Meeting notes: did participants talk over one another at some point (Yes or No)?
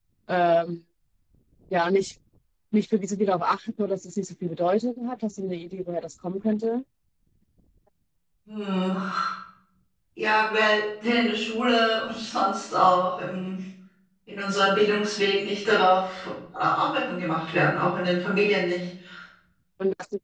No